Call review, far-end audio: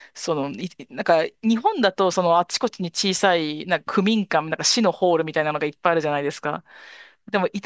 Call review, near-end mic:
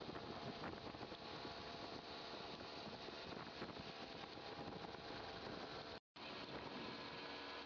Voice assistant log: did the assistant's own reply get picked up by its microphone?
No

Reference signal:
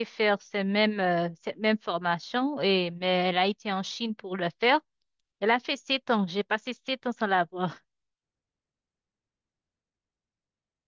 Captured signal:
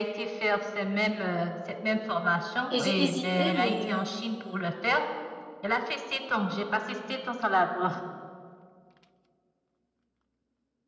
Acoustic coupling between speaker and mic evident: Yes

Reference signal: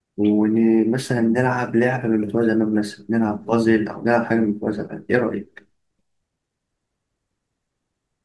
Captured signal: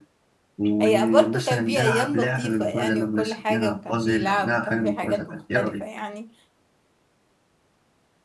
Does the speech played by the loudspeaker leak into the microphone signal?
Yes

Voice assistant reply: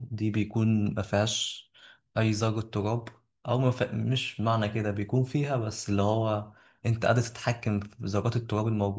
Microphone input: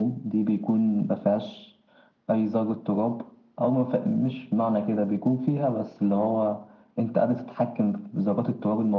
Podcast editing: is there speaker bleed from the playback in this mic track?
Yes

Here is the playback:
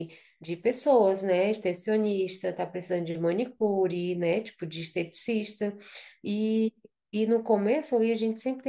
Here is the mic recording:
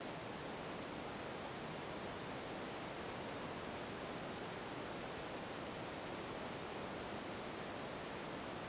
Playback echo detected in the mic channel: No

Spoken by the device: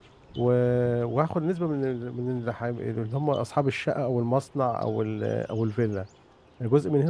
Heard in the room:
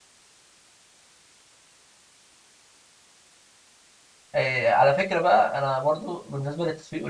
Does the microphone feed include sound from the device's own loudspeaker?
No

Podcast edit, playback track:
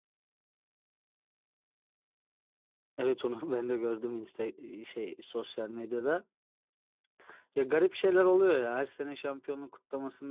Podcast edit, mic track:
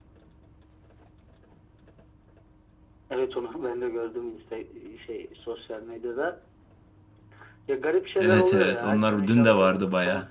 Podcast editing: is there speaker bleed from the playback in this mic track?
Yes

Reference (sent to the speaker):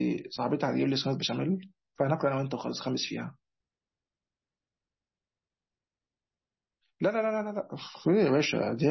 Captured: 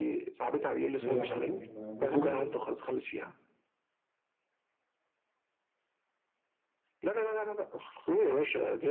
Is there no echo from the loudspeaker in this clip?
No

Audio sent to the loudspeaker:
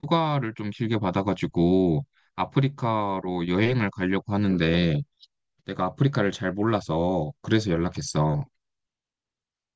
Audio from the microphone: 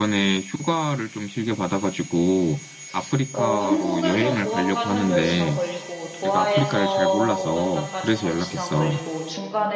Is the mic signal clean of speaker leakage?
No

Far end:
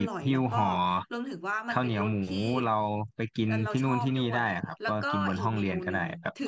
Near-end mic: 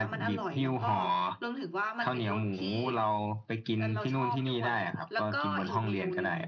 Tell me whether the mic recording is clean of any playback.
No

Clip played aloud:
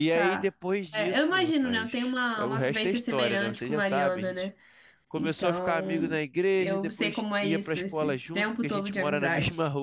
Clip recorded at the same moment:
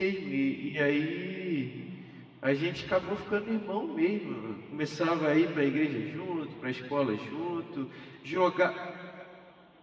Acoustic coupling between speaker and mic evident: No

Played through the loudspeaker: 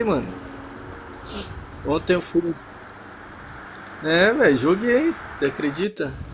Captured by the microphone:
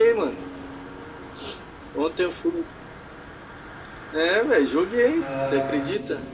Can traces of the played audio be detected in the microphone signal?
Yes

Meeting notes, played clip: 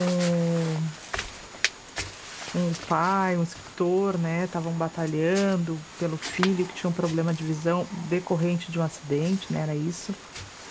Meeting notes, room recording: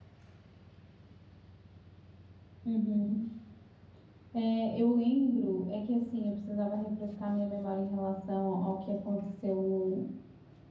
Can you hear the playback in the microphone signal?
No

